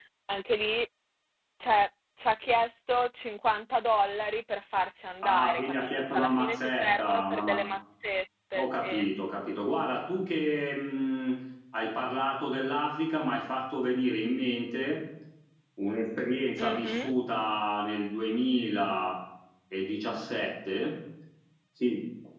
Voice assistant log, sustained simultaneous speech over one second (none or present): present